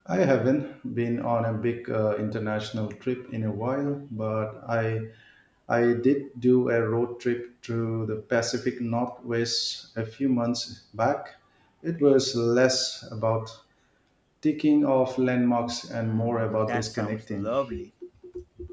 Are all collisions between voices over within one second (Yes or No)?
No